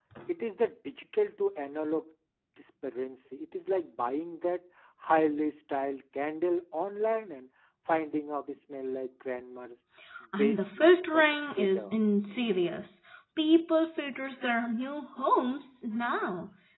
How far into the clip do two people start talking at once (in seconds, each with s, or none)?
10.4 s